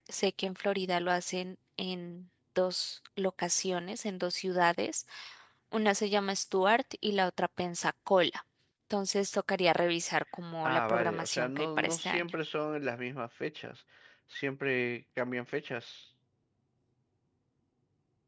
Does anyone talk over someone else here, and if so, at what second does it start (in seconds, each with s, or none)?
10.6 s